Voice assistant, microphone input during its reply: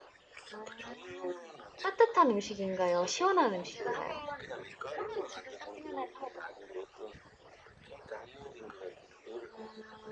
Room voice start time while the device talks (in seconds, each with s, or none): 1.8 s